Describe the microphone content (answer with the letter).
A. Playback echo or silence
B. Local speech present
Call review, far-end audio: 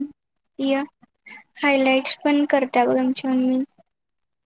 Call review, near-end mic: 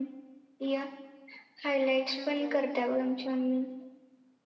B